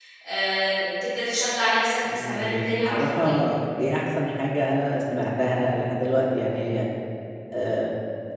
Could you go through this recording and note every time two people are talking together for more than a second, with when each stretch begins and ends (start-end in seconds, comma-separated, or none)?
2.1-3.4